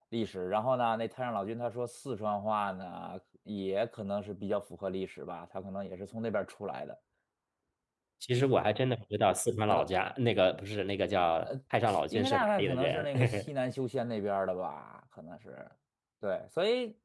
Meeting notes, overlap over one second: present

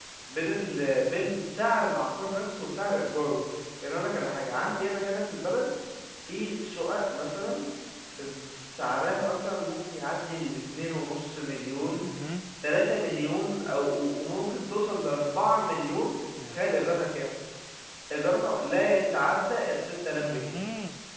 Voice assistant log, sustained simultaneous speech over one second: none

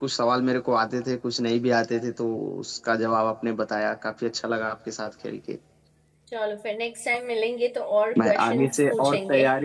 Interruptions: present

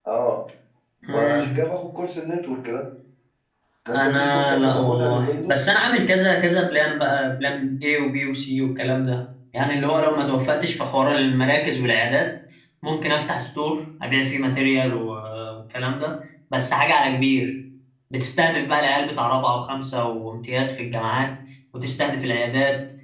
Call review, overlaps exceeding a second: present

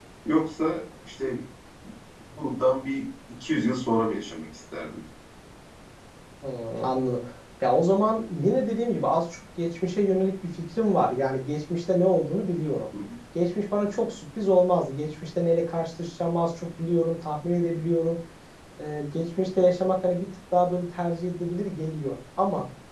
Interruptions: none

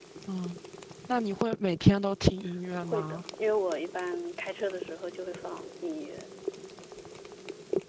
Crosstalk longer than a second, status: none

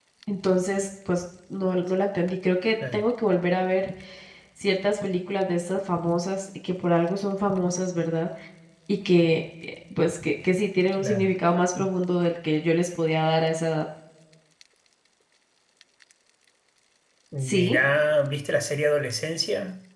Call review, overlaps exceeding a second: none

